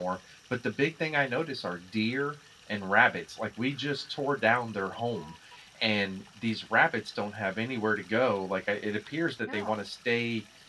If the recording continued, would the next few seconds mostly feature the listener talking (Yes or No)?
No